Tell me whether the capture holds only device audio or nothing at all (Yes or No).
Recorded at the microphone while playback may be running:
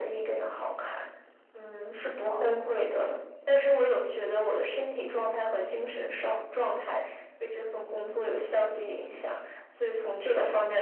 Yes